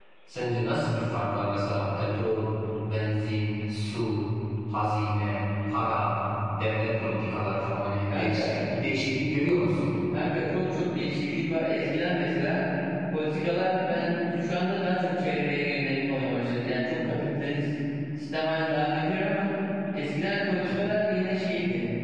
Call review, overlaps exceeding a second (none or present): none